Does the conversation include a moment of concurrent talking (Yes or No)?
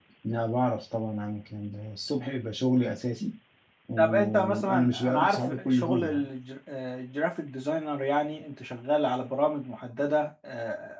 Yes